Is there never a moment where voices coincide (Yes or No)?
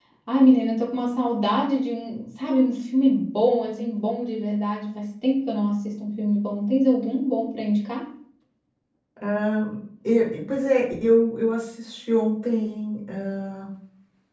Yes